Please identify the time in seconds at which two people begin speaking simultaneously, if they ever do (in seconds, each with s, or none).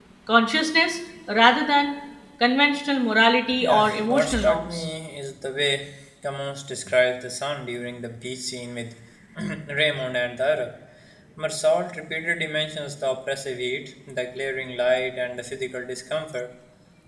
3.6 s